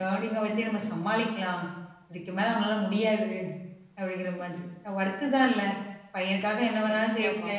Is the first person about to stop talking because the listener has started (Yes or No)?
No